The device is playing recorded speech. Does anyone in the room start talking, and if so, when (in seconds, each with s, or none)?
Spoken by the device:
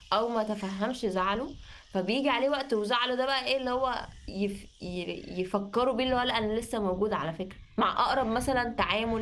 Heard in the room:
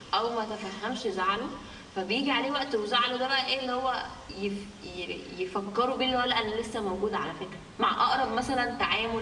none